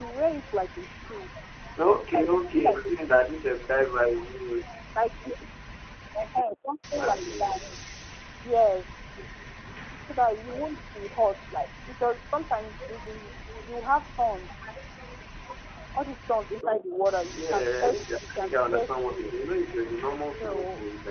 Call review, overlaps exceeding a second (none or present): present